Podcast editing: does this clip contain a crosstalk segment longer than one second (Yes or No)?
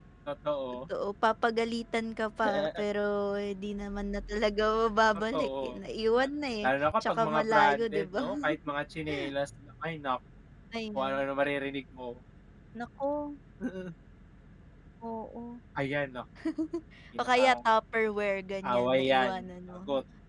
Yes